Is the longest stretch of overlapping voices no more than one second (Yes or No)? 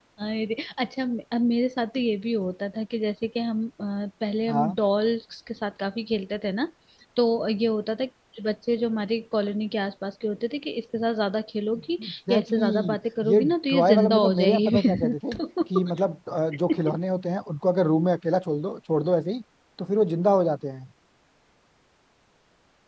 No